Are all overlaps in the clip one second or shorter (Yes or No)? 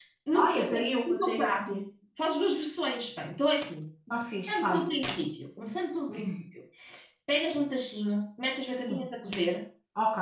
No